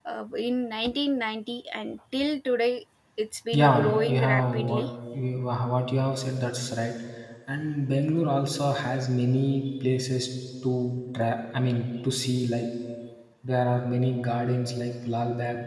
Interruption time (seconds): 4 s

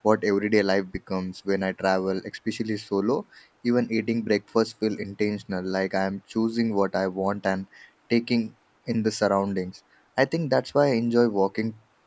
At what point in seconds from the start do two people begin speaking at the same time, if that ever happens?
none

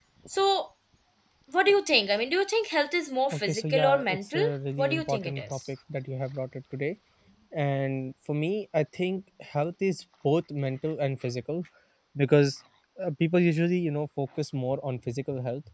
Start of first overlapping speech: 3 s

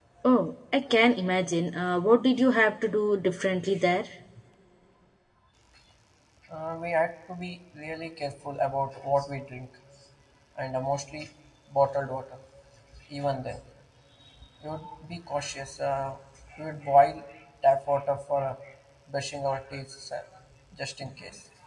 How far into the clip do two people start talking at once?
none

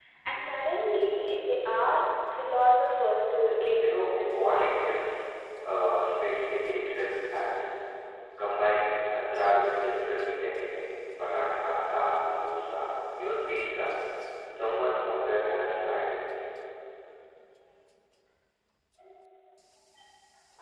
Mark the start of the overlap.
4 s

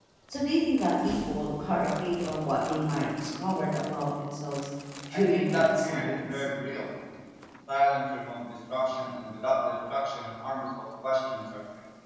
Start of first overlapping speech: 5 s

